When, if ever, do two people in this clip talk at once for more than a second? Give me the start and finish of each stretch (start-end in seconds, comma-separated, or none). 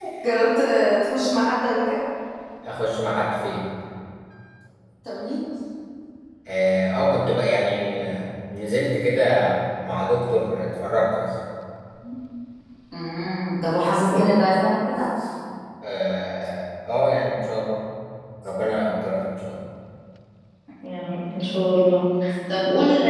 none